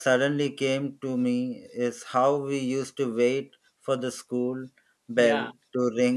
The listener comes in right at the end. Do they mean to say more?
No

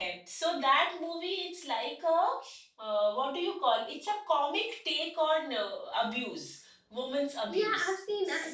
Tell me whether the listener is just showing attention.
No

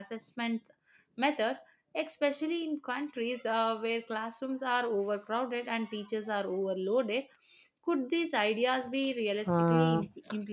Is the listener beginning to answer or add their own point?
Yes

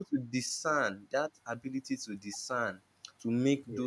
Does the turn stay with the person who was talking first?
Yes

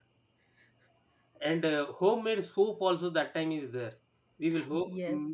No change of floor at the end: Yes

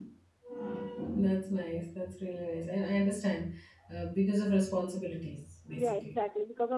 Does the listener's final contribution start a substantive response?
Yes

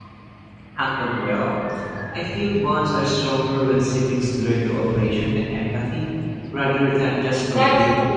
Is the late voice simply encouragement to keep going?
No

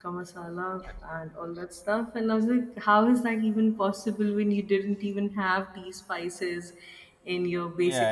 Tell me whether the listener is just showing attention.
No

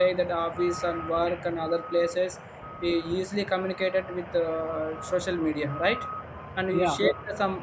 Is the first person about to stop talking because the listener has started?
No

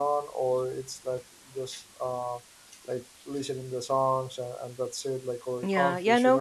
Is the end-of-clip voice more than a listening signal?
Yes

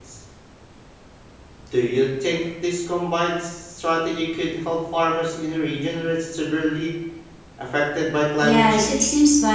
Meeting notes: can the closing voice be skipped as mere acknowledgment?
No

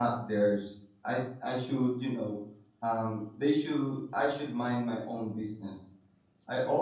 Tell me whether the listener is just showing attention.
No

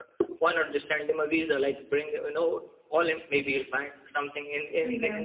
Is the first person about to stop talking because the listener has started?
No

